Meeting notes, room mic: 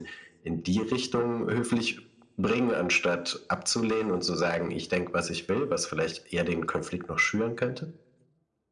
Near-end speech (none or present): none